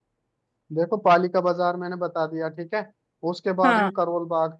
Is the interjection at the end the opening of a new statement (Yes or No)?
No